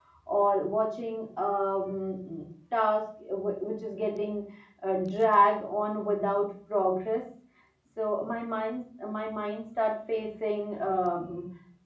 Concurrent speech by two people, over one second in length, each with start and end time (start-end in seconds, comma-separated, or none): none